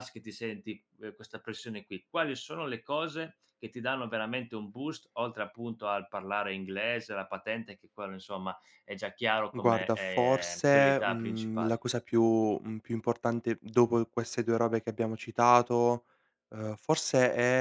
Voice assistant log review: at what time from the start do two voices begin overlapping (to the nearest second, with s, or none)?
10 s